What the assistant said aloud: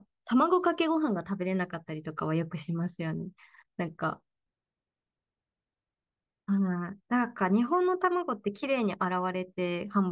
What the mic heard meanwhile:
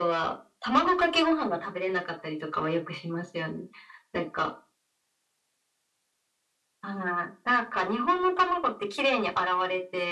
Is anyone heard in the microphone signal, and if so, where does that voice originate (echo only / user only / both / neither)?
echo only